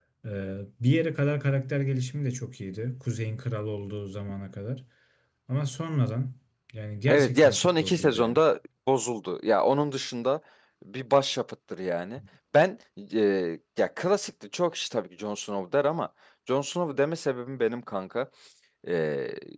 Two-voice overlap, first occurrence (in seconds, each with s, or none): 7.1 s